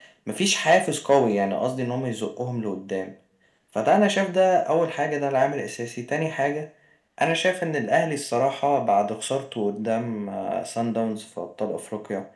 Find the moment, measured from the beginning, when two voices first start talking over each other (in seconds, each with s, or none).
none